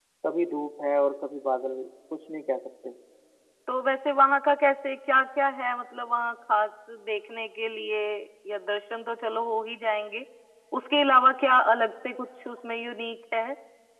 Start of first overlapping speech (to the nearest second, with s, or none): none